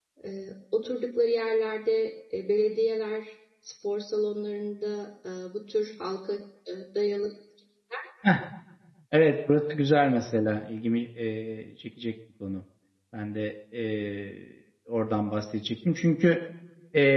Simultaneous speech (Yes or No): No